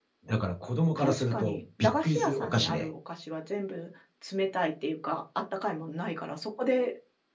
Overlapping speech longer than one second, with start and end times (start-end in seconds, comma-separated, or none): 0.9-2.9